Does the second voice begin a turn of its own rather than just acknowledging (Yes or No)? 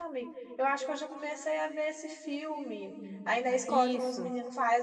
No